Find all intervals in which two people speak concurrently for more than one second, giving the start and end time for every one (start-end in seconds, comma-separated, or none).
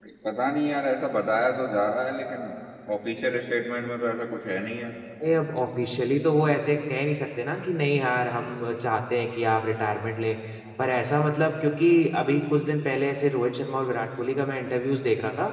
none